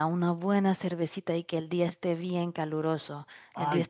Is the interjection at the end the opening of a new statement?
No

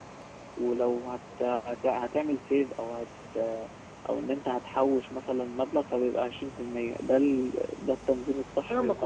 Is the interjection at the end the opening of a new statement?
Yes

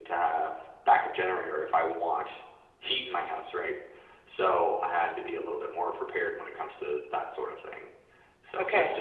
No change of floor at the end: Yes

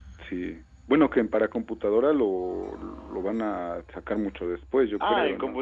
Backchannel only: No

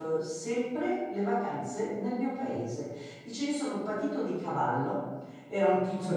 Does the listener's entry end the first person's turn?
No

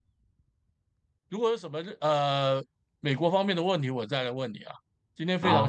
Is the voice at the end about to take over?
Yes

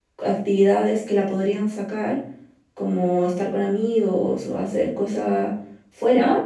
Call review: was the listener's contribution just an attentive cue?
Yes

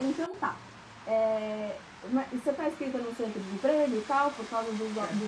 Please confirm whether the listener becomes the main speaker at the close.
No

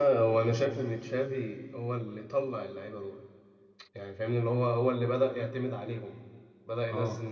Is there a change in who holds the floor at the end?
No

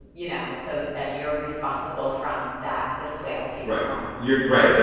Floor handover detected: Yes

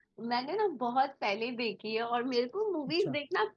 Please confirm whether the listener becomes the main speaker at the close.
No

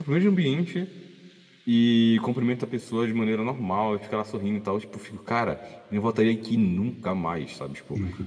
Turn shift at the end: No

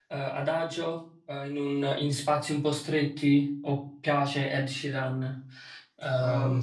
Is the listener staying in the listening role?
No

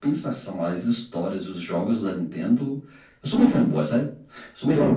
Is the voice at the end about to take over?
No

